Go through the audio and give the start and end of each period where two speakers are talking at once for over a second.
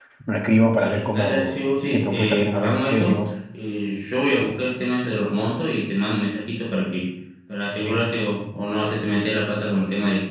0.8-3.2

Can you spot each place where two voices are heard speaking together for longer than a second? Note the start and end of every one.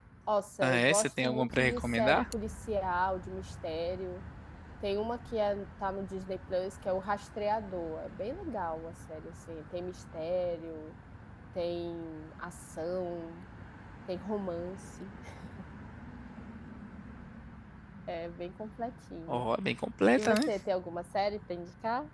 0.6-2.2

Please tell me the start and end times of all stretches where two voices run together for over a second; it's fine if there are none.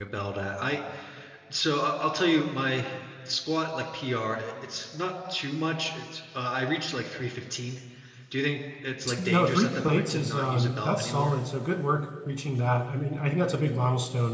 9.2-11.4

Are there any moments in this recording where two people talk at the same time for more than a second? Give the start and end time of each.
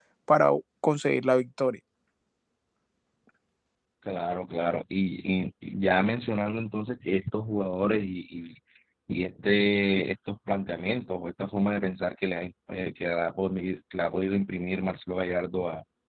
none

